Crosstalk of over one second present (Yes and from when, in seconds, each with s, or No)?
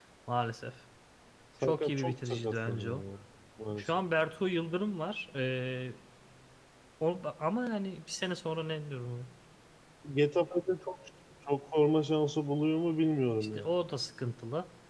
Yes, from 1.6 s